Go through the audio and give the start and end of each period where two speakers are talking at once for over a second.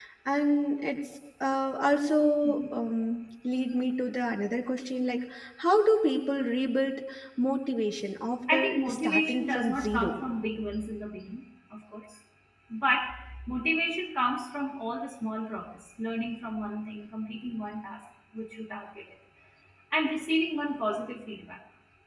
8.5-10.2

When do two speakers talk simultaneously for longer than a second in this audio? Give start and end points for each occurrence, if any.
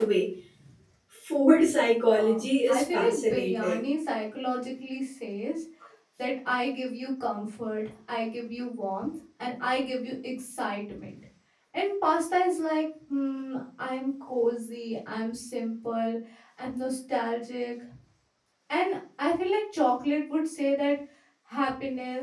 2.1-3.8

